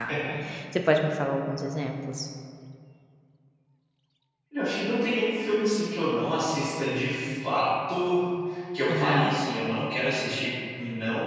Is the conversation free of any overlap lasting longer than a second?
Yes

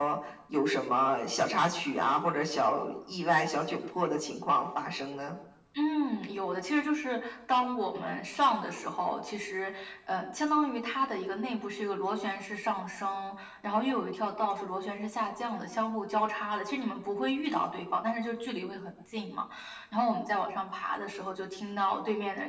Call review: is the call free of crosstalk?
Yes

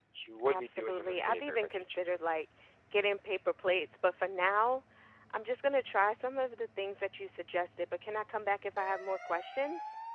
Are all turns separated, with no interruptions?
No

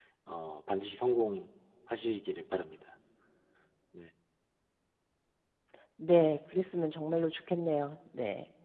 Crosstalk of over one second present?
No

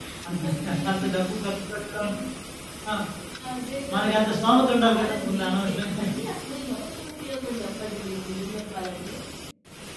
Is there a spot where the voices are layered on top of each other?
Yes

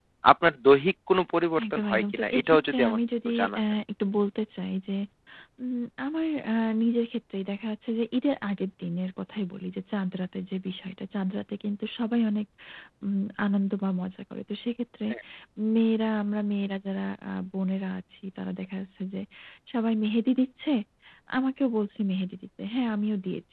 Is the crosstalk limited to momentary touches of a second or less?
No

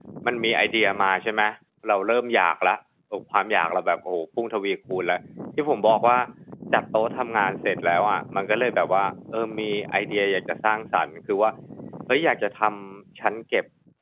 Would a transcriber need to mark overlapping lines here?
No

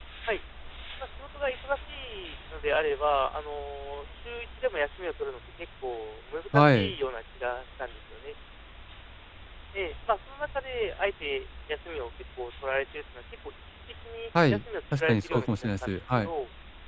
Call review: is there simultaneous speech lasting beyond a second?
Yes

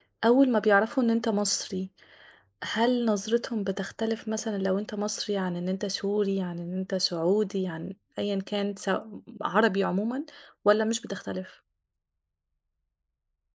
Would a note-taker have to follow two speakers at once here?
No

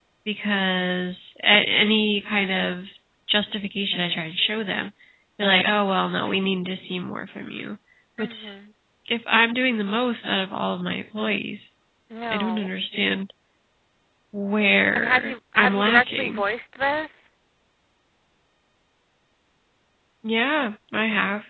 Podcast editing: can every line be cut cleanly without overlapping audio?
No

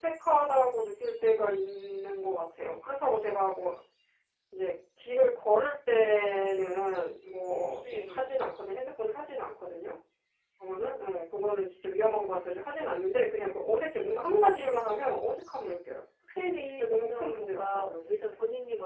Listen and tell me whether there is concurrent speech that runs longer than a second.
Yes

